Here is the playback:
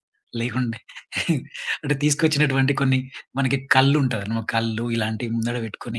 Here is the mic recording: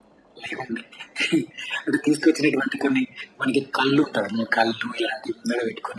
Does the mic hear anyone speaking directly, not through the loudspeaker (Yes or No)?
No